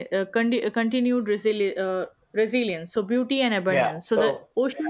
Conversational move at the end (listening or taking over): taking over